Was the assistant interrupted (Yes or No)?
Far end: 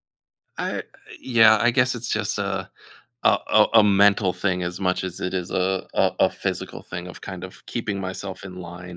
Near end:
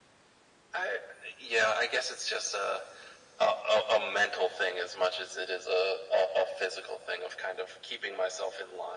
No